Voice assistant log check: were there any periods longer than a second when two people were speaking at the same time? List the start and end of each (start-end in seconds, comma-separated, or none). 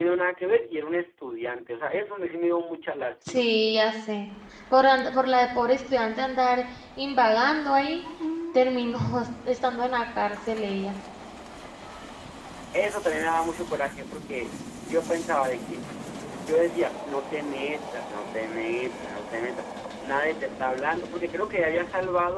none